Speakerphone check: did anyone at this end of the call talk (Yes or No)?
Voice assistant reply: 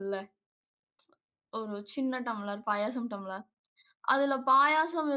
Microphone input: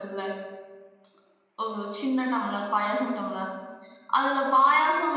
No